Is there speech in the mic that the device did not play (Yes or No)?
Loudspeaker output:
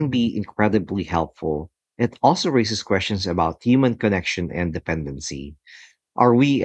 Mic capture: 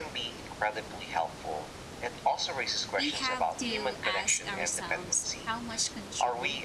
Yes